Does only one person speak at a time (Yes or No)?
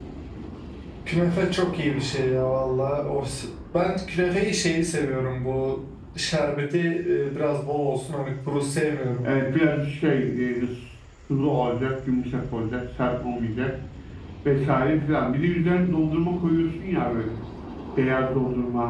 Yes